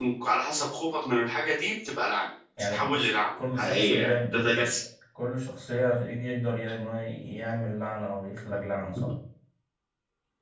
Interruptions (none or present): present